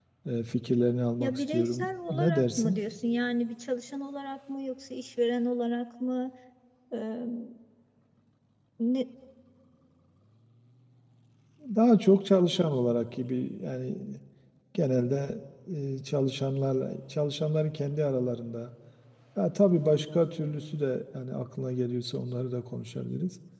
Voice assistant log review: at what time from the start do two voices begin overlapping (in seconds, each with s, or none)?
1.2 s